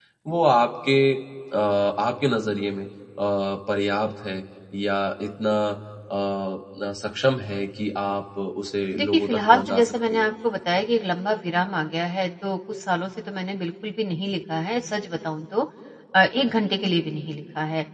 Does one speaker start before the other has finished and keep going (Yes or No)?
Yes